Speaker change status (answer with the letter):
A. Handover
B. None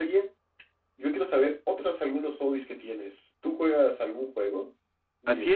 A